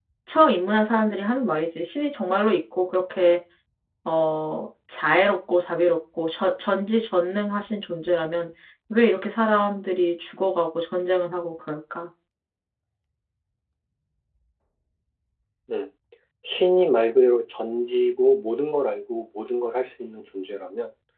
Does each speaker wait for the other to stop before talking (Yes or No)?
Yes